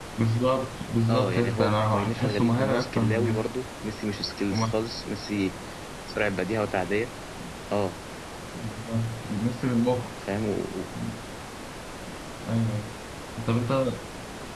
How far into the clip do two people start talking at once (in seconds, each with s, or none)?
1.1 s